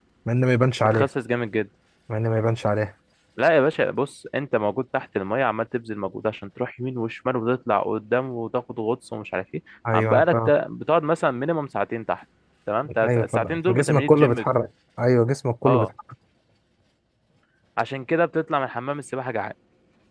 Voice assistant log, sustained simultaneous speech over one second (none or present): present